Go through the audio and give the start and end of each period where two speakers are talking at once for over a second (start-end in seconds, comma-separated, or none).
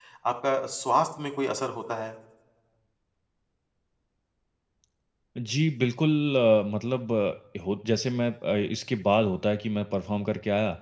none